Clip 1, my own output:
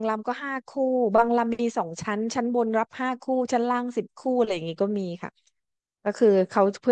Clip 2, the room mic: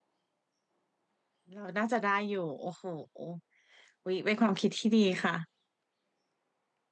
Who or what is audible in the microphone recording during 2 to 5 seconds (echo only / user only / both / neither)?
user only